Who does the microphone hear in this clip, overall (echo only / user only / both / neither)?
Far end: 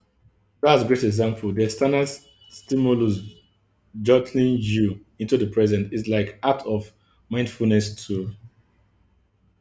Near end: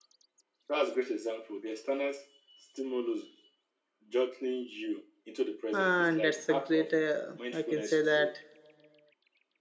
both